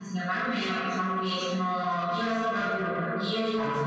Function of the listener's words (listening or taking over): listening